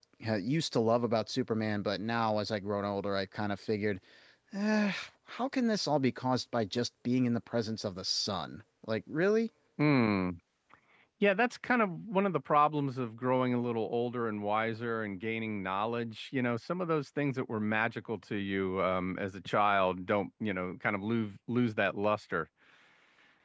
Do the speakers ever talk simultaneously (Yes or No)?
No